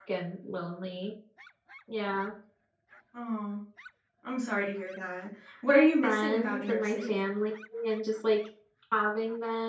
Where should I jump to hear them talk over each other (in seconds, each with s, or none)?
5.7 s